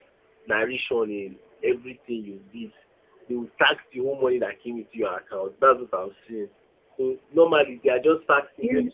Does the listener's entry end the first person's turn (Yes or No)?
No